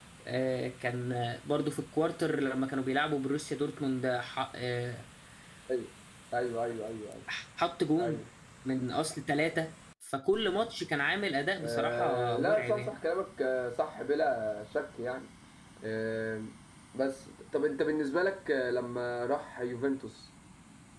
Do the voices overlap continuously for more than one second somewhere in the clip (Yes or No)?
Yes